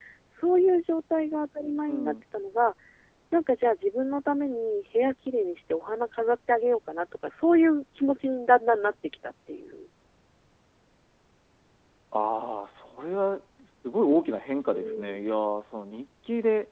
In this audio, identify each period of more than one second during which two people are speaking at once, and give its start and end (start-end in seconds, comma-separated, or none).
none